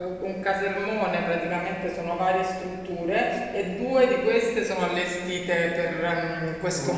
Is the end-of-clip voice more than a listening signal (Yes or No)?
No